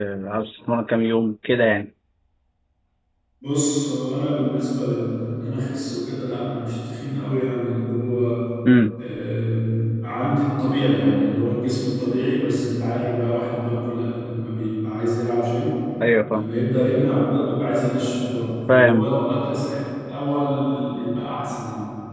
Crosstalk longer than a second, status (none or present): none